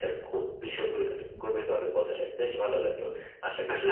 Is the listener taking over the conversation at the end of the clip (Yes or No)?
Yes